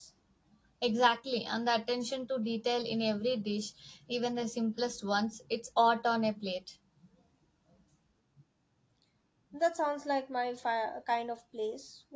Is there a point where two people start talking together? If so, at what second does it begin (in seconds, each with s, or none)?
none